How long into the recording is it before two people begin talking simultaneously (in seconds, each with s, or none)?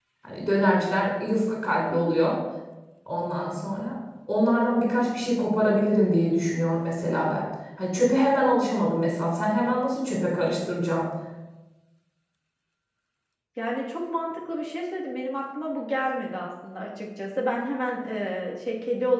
none